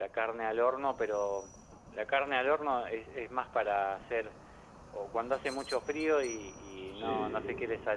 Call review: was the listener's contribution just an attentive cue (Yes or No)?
Yes